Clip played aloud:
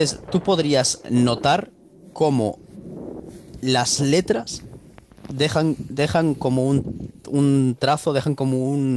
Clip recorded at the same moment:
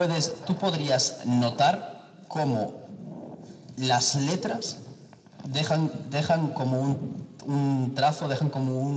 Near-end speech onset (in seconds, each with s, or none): none